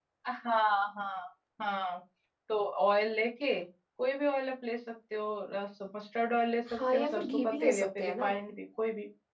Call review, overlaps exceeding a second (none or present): present